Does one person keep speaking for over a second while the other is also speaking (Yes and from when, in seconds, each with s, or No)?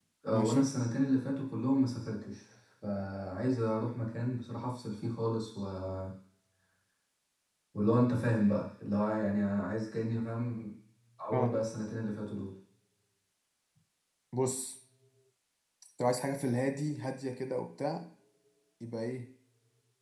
No